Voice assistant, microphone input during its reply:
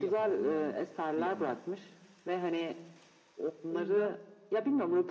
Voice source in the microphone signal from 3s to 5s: both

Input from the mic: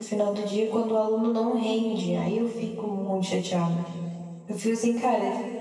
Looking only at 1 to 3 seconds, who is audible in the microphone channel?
user only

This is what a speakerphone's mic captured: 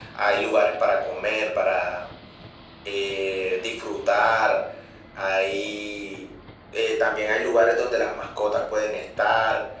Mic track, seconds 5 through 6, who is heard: echo only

